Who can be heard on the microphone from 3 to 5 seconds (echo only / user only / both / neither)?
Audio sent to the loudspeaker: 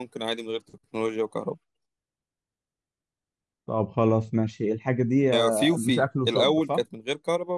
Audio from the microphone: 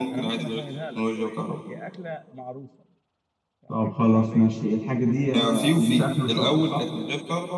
both